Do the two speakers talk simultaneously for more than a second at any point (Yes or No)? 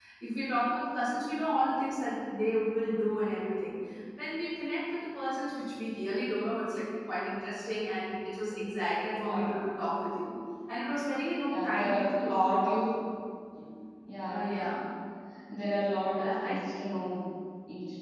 Yes